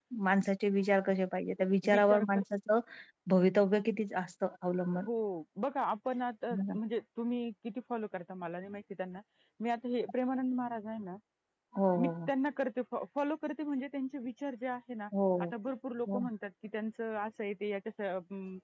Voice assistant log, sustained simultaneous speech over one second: none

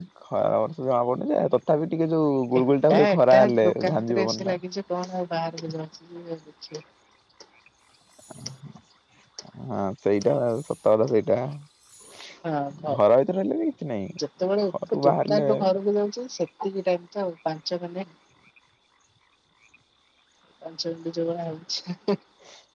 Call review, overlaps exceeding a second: present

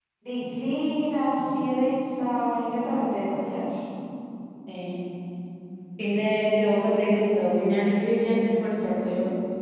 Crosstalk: none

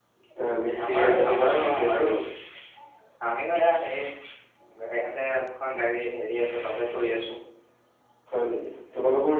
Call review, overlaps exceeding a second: present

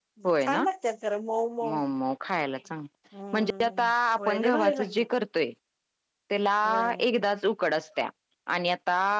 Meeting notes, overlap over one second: present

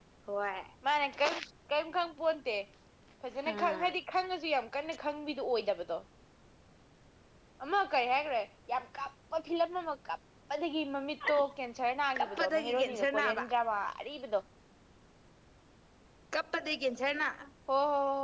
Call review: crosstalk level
present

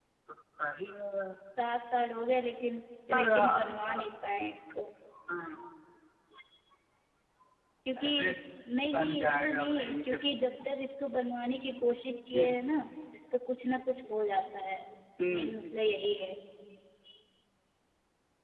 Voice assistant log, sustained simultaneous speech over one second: present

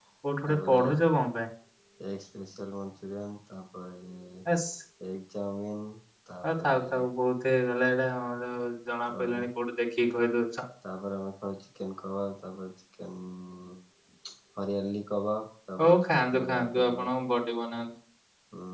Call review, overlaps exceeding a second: present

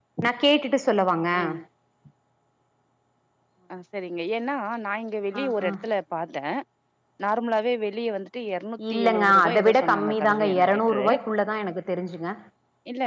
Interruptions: present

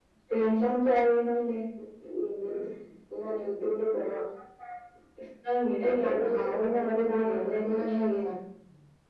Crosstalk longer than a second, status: present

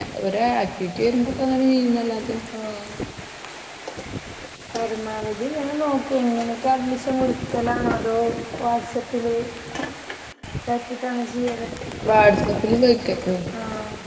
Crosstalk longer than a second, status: none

